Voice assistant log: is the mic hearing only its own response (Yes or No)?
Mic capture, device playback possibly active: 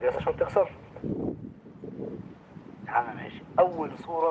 Yes